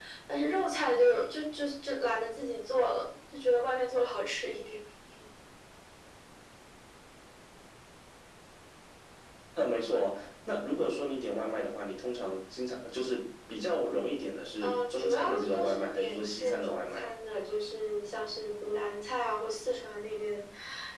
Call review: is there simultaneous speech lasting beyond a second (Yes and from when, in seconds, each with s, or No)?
Yes, from 14.6 s